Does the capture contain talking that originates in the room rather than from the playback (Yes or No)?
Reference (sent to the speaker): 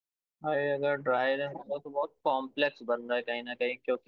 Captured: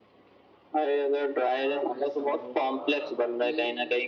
Yes